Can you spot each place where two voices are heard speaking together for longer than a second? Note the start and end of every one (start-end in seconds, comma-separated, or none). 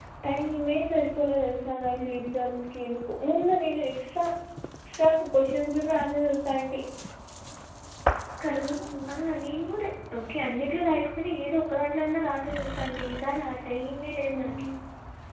none